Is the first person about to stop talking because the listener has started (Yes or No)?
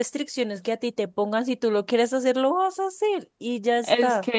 Yes